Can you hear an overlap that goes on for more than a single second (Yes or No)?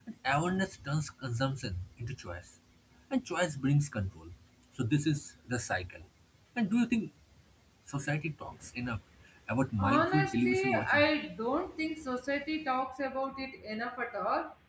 Yes